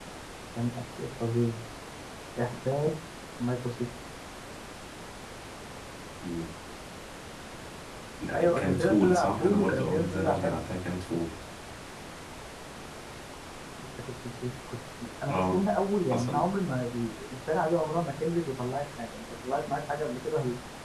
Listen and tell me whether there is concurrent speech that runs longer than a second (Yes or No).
Yes